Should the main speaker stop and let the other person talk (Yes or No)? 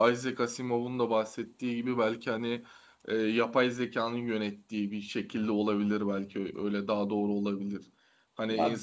No